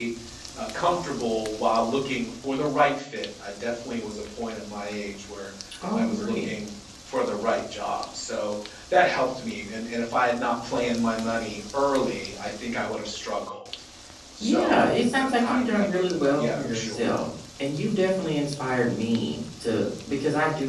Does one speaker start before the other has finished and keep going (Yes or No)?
Yes